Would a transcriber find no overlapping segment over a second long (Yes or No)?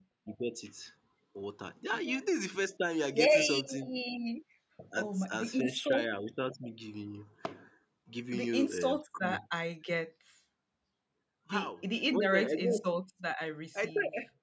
No